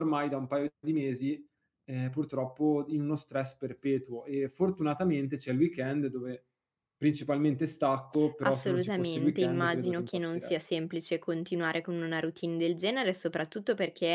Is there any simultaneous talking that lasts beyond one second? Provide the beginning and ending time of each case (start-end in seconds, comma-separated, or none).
8.4-10.5